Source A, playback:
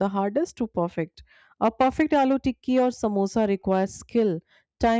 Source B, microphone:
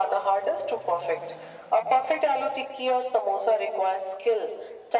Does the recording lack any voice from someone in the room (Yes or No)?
Yes